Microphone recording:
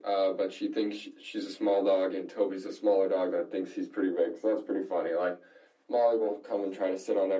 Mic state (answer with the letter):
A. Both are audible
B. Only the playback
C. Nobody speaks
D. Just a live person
B